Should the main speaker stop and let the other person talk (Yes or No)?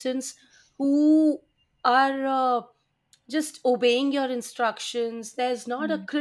No